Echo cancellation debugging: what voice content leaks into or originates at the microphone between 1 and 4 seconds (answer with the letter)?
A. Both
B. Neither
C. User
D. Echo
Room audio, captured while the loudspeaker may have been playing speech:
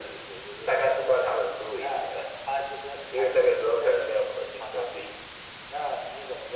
D